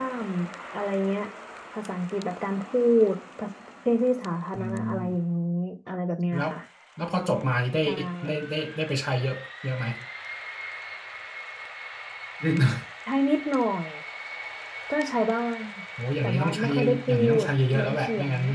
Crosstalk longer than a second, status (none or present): present